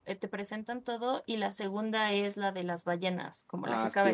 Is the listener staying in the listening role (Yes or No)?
No